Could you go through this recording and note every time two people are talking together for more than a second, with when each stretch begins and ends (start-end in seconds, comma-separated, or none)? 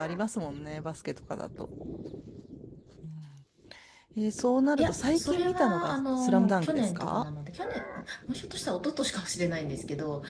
4.8-7.2